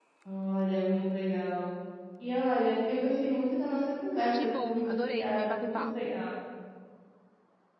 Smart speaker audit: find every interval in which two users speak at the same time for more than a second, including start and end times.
4.4-6.1

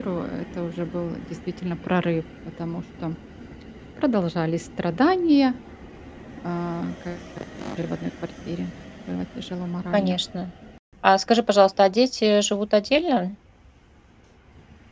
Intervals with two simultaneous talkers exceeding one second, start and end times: none

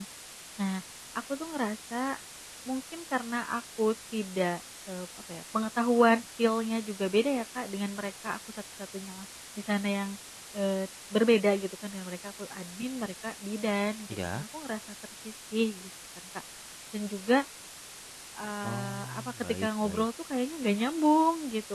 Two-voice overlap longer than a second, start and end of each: 18.6-20.1

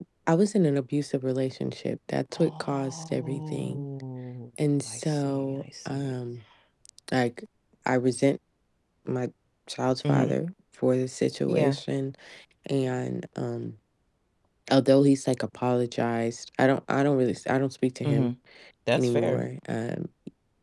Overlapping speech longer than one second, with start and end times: 2.3-3.8, 4.9-6.1

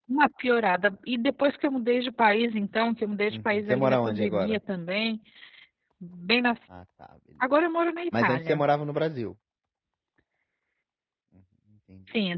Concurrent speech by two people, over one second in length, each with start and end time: 3.3-4.6

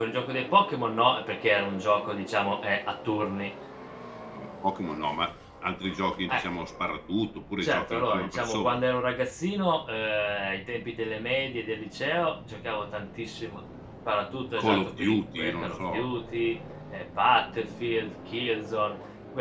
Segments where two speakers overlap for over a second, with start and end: 7.6-8.8, 14.6-15.9

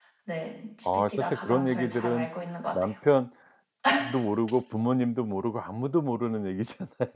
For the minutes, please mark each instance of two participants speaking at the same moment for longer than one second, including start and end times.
0.9-2.3

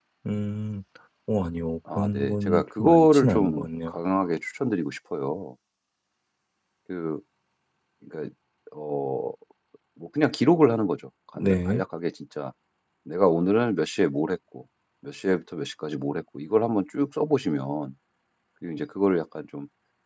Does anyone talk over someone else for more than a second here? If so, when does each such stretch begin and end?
1.9-3.9

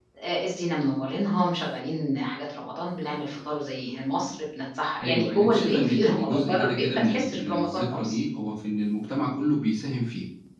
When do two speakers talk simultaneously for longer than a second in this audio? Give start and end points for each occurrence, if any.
5.0-8.2

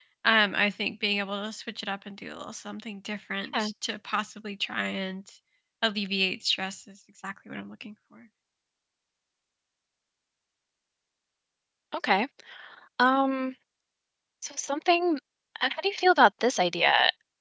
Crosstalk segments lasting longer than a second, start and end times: none

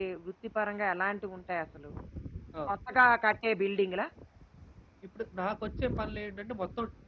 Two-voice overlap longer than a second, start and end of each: none

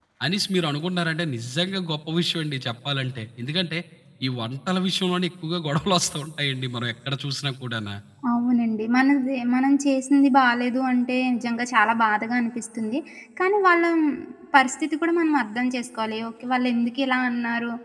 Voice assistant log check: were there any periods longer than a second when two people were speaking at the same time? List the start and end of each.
none

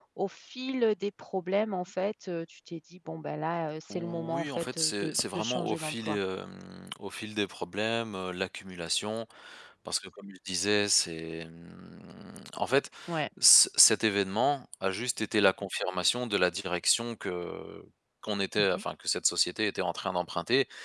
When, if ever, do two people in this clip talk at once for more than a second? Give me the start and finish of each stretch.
3.9-6.2

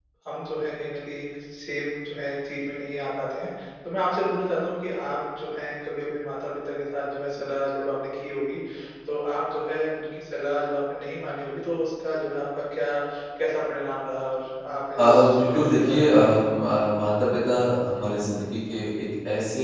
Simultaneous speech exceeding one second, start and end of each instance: 15.0-16.5

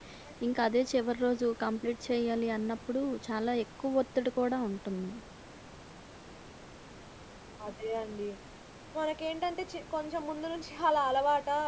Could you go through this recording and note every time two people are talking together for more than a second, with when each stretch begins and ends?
none

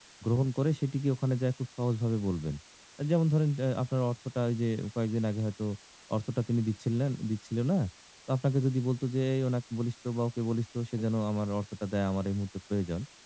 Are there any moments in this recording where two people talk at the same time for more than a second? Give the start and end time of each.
none

